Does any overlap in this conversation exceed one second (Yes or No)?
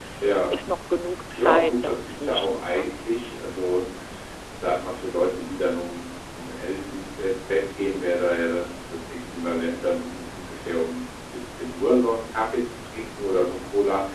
Yes